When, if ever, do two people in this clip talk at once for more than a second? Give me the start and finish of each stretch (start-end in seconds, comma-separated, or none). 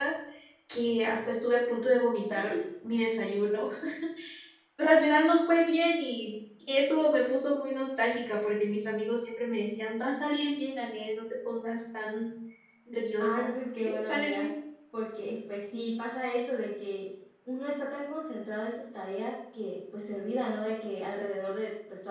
13.2-14.5